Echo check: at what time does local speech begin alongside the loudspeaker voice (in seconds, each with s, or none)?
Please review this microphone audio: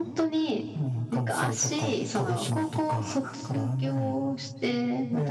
none